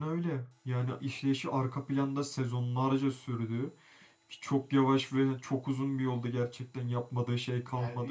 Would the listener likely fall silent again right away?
No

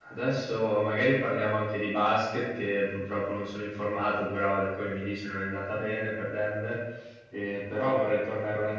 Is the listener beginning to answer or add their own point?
No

